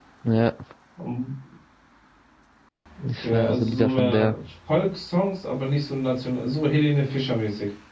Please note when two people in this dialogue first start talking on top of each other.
3.1 s

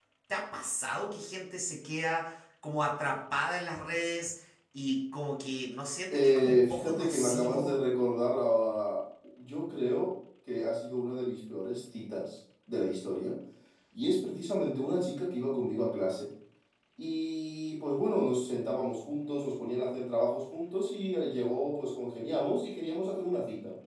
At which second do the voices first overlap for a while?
6.1 s

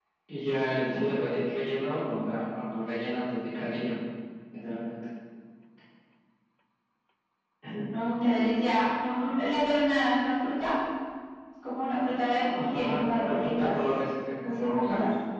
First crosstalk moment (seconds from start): 12.5 s

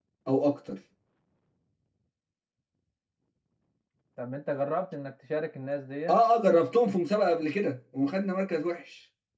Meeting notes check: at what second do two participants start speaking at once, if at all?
none

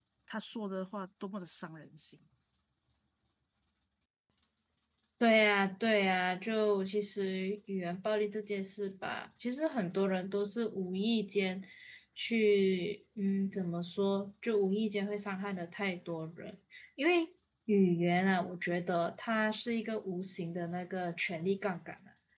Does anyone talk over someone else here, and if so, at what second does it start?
none

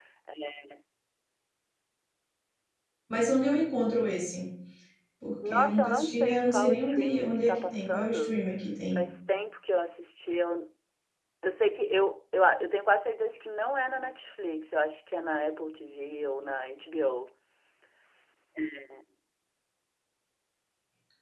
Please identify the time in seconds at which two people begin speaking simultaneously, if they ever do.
5.5 s

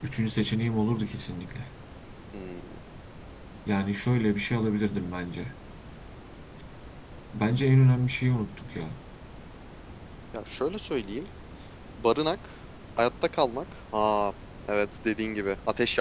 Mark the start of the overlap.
none

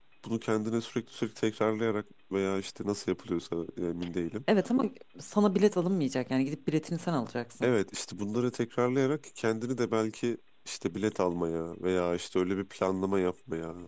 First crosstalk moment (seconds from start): none

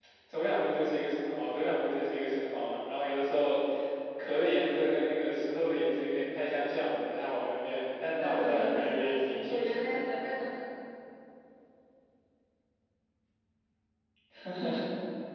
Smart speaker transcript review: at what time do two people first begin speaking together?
8.2 s

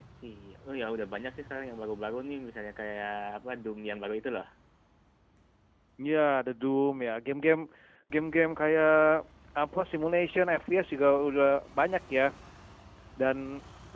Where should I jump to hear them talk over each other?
none

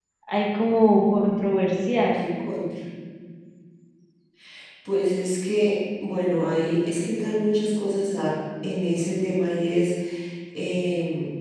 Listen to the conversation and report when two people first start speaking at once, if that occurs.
none

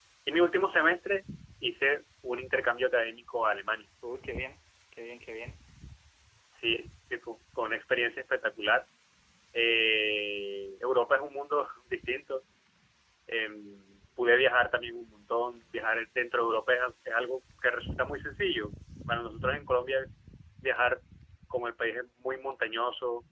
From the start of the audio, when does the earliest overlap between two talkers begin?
none

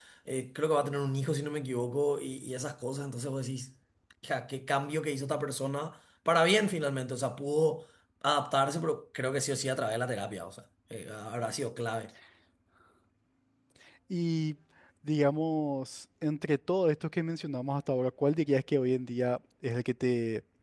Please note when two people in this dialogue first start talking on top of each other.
none

